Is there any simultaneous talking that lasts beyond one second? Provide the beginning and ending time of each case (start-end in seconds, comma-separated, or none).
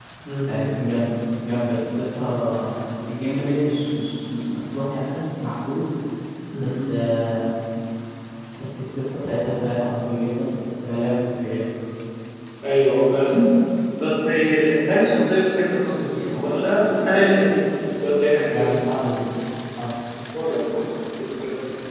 none